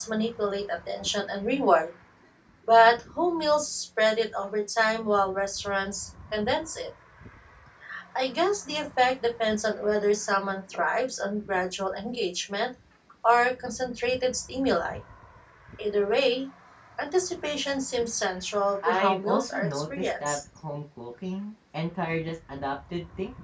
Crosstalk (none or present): present